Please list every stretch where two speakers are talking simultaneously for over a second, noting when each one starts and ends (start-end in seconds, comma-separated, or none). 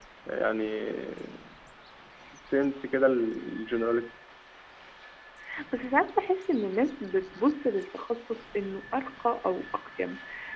none